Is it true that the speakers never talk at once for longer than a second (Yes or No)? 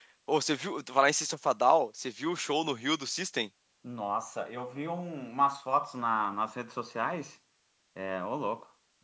Yes